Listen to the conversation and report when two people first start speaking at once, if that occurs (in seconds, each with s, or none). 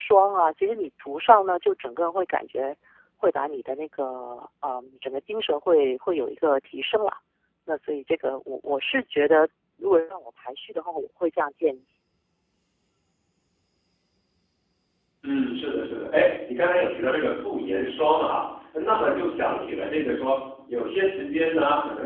none